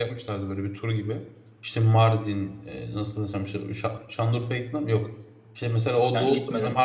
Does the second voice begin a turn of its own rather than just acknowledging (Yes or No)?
No